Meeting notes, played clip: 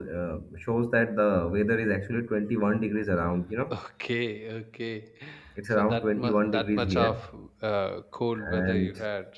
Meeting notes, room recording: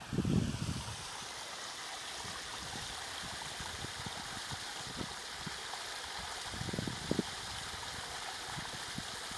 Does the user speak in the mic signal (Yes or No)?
No